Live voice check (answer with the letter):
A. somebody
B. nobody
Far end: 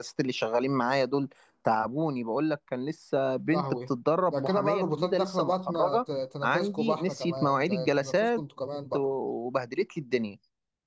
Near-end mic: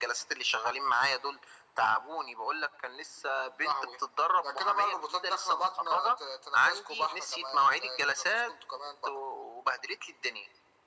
B